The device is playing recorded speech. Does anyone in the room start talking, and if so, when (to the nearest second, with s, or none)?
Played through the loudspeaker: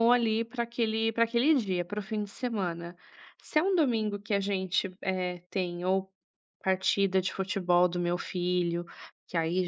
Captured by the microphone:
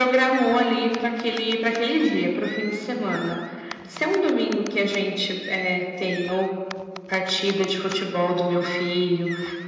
none